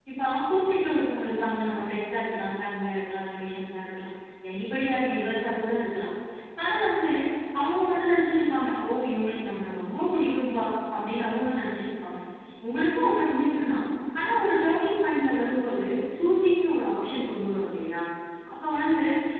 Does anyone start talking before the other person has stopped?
No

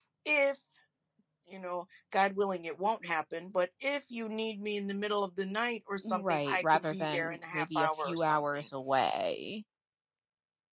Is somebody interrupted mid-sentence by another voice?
Yes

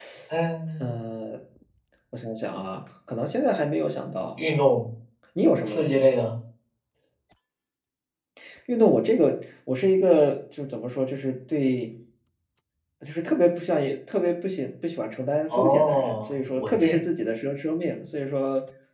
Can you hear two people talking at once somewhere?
Yes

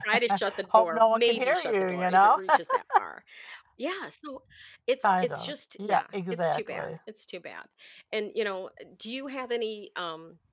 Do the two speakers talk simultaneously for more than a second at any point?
Yes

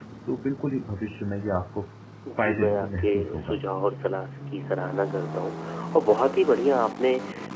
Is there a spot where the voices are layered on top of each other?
Yes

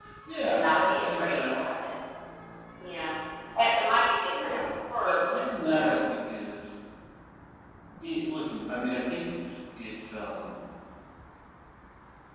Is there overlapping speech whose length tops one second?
Yes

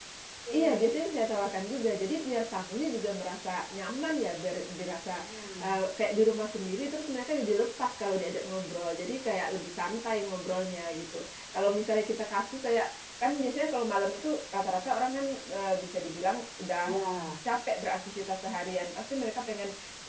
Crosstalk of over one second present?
No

